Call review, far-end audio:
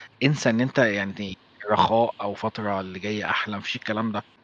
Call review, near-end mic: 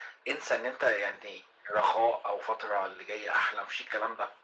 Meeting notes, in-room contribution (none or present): none